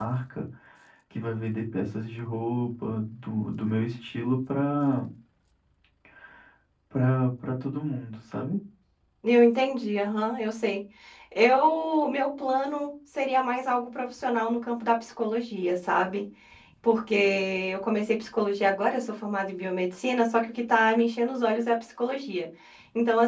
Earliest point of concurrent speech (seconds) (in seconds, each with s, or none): none